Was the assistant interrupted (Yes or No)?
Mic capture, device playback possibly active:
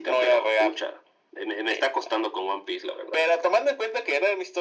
No